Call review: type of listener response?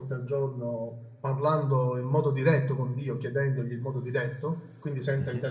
listening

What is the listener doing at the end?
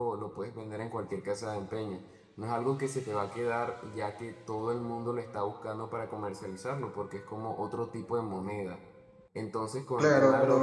listening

